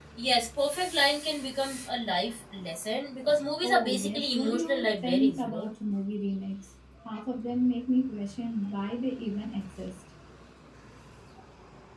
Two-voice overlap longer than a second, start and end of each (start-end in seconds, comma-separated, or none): 3.6-5.7